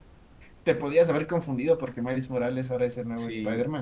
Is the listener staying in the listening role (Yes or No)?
No